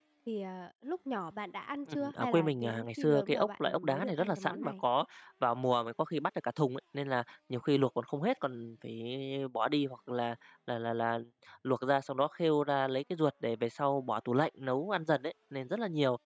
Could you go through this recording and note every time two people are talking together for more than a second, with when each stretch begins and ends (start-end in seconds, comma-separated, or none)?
1.9-4.8